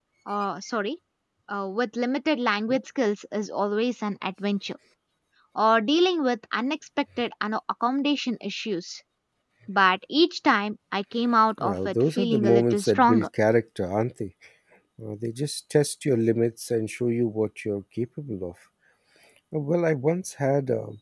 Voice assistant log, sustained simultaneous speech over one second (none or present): present